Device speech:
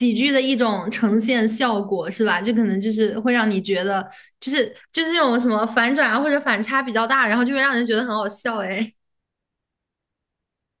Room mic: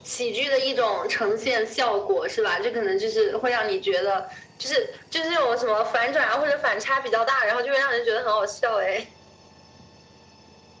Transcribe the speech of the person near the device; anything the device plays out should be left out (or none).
none